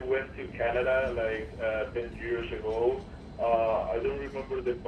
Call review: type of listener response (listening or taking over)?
listening